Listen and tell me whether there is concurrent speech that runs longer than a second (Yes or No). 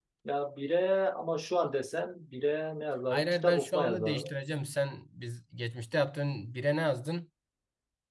Yes